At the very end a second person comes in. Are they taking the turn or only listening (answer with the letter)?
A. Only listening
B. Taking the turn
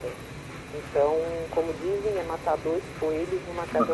B